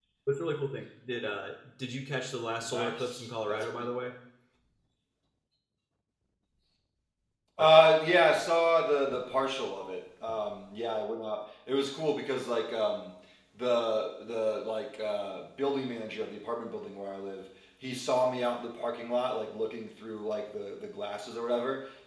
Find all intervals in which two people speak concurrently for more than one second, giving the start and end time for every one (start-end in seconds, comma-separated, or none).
2.7-4.1